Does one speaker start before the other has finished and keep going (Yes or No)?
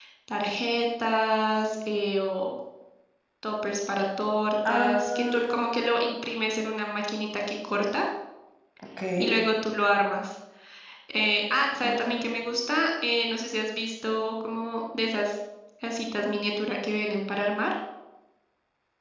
Yes